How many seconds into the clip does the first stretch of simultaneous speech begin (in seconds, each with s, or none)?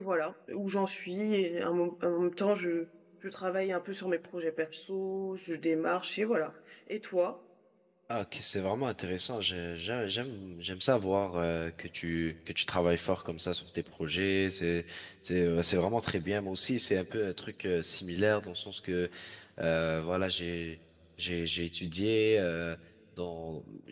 none